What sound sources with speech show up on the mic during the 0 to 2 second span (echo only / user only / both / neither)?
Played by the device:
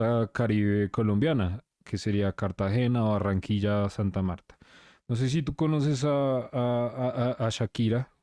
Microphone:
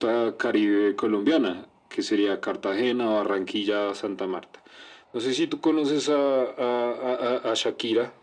echo only